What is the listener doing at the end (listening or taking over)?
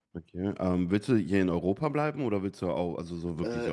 taking over